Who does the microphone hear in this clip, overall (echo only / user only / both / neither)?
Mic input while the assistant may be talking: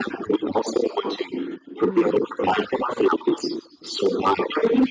both